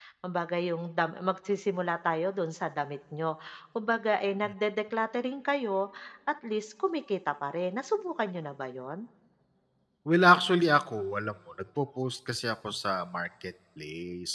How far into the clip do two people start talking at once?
none

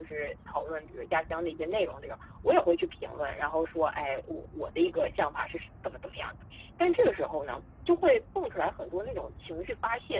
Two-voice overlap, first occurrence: none

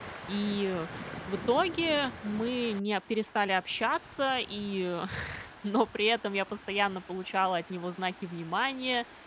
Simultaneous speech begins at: none

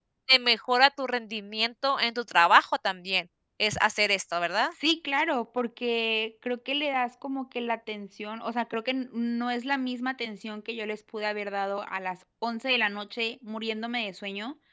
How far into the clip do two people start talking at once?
none

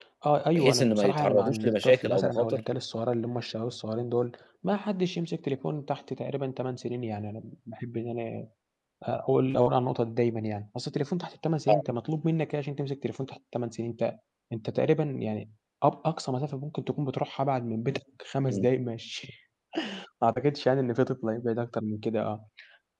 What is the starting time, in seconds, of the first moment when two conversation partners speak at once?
0.6 s

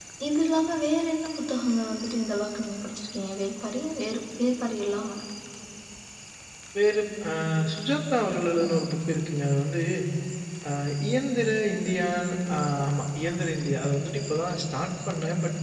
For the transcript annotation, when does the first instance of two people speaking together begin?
none

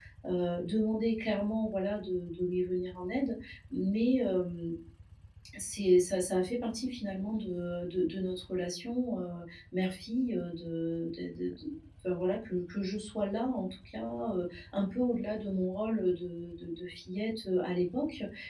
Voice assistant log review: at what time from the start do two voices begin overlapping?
none

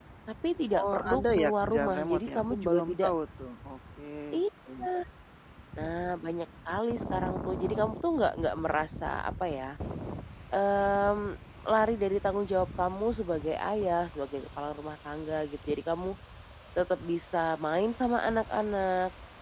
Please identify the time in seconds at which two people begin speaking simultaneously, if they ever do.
0.7 s

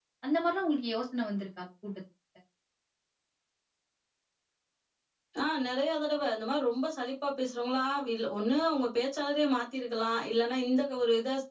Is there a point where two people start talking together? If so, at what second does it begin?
none

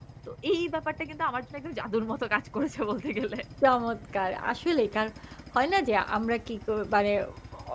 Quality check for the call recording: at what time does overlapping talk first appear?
none

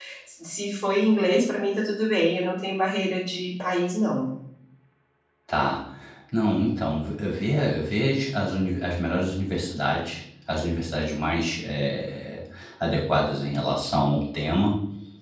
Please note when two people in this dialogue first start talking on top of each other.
none

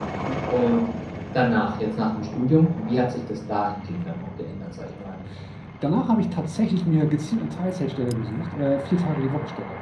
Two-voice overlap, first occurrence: none

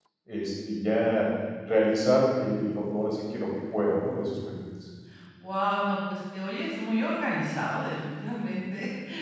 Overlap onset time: none

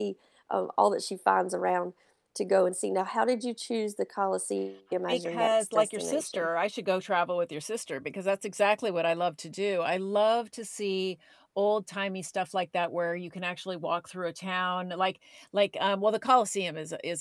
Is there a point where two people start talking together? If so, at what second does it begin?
5.1 s

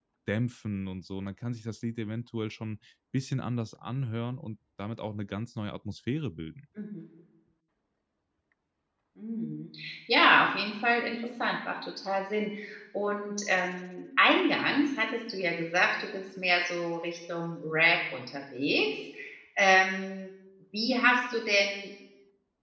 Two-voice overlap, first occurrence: none

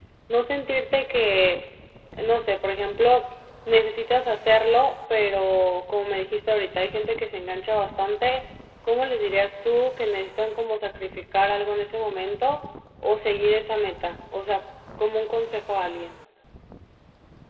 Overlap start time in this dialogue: none

